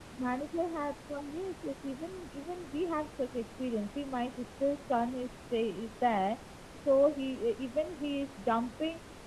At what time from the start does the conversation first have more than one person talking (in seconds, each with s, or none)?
none